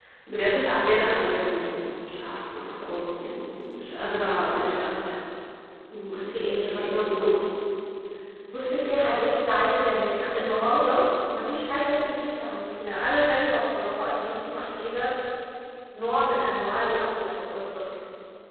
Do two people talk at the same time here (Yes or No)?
Yes